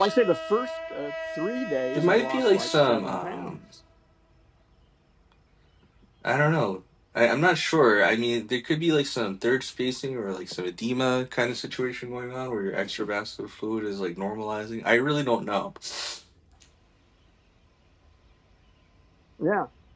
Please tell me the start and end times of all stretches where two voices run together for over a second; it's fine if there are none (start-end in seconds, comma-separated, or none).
2.0-3.5